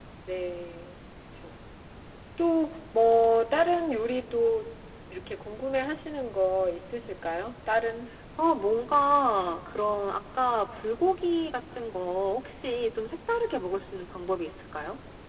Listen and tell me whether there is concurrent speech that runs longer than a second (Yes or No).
No